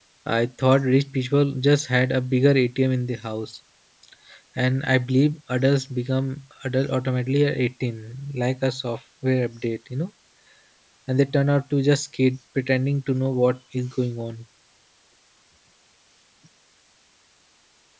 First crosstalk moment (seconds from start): none

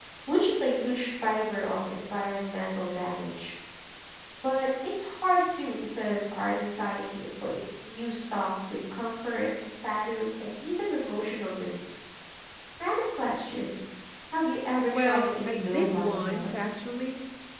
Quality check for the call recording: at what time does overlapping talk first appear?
14.9 s

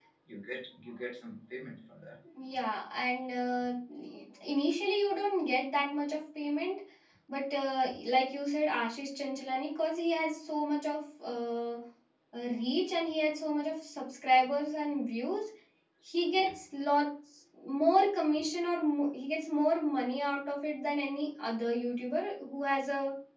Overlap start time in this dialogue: none

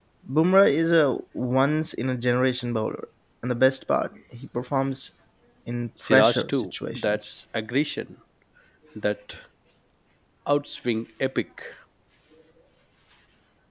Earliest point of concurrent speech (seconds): 6.0 s

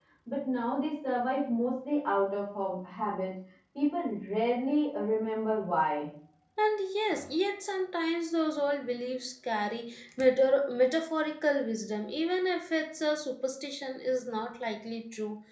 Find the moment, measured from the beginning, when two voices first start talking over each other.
none

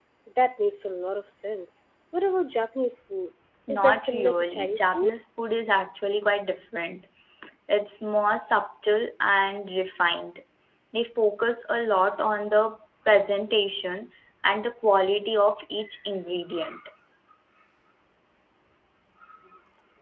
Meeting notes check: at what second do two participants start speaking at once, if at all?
3.7 s

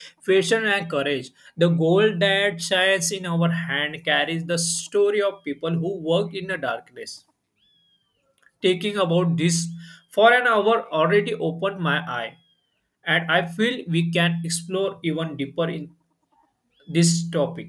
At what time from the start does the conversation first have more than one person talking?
none

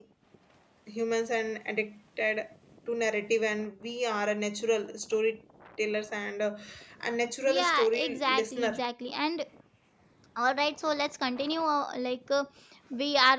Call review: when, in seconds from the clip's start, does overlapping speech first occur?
7.5 s

